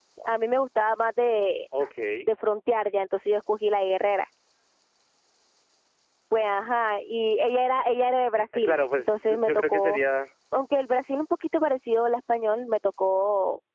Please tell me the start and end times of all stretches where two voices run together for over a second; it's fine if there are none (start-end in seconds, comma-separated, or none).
8.6-10.0